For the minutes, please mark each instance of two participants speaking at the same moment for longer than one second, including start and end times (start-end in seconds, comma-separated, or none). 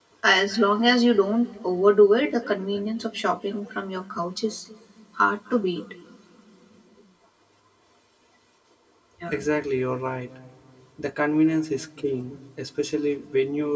none